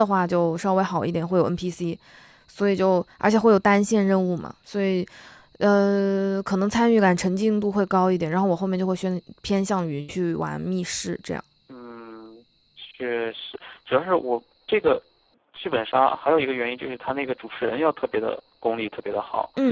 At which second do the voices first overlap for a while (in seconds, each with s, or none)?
none